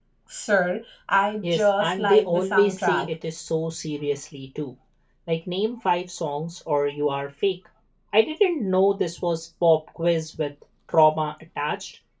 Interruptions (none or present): present